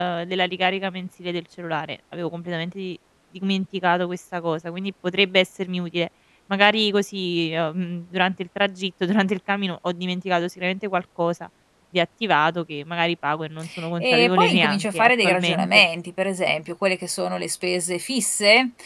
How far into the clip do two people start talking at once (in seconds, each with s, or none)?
14.0 s